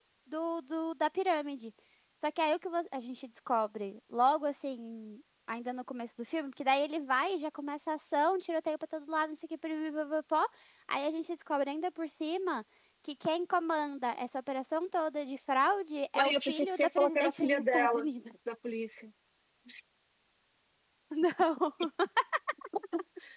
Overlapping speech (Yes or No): Yes